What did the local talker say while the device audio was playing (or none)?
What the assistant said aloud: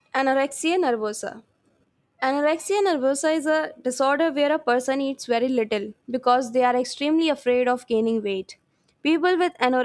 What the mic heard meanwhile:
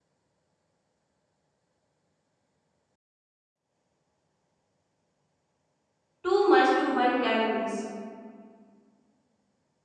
too much to burn calories.